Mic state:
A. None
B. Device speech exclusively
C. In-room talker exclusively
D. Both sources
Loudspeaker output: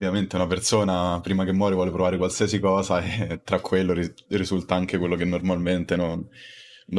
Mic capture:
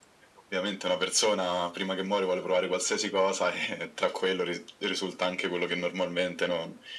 B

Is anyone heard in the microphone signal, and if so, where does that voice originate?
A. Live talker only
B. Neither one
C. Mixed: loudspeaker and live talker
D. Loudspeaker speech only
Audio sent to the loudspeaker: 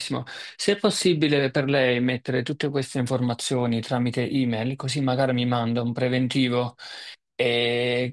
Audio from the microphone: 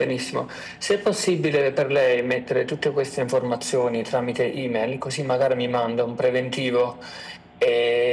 D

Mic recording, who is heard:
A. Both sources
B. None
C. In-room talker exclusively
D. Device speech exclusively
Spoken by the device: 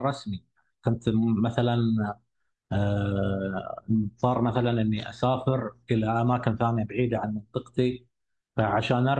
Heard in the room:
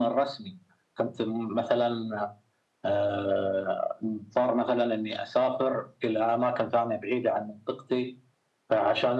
D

